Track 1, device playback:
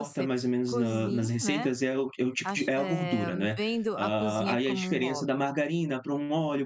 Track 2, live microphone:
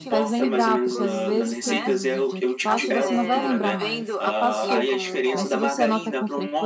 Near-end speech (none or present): present